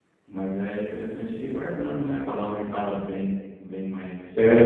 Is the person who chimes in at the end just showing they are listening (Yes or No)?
No